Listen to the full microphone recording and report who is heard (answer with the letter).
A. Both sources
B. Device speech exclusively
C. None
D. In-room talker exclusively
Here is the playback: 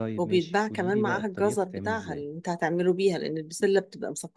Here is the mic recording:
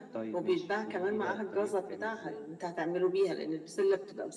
B